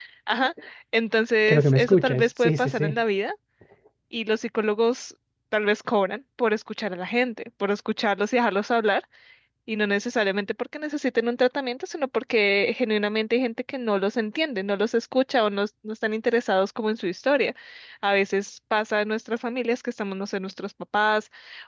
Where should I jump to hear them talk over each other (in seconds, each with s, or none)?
1.5 s